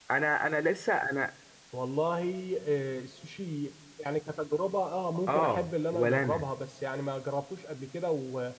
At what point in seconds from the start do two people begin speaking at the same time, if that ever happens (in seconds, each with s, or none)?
5.3 s